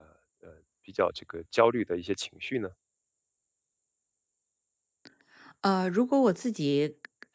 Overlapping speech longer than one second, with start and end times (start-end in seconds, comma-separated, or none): none